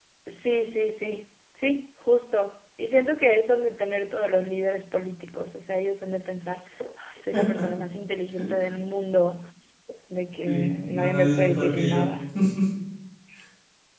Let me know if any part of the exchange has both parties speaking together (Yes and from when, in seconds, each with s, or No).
Yes, from 10.4 s